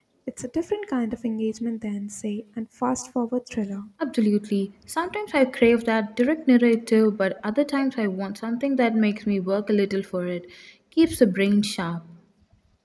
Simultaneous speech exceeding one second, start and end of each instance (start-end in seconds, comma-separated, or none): none